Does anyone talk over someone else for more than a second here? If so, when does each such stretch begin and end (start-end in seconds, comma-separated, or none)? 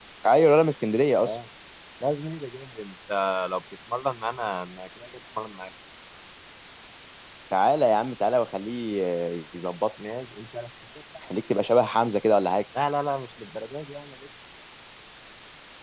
none